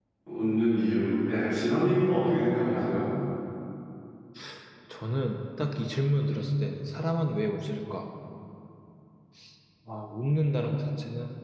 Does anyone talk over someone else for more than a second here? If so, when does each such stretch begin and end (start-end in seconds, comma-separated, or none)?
none